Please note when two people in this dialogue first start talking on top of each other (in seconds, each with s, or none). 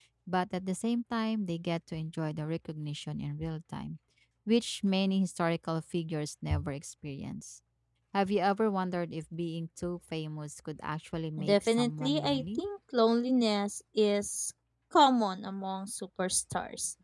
11.4 s